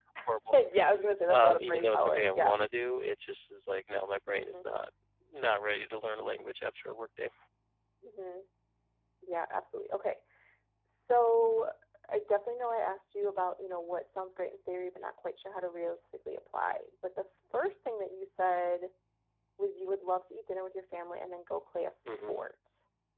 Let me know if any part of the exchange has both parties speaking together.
Yes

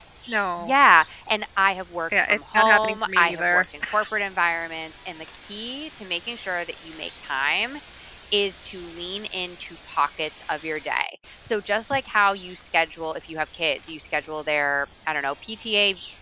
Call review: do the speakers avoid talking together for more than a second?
No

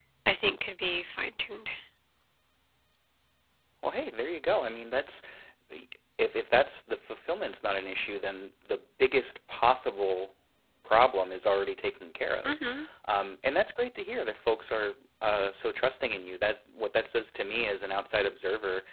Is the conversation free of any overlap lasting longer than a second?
Yes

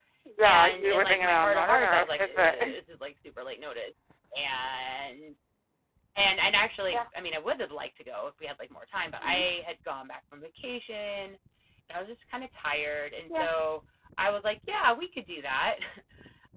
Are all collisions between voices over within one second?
No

